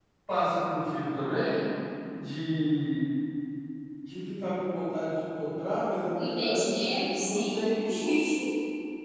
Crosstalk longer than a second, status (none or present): present